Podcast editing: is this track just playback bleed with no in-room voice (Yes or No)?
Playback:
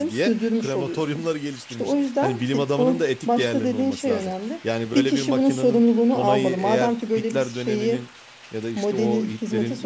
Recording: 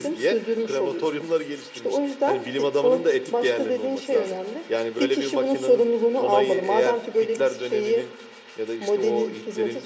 Yes